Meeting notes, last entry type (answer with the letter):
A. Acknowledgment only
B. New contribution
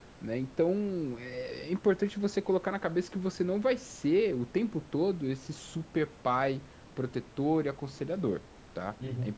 A